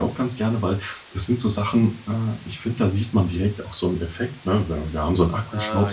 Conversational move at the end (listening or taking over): listening